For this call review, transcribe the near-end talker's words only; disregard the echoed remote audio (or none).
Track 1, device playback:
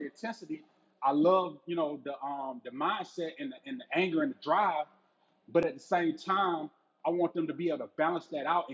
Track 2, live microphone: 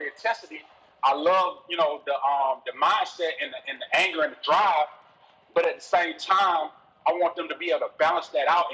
none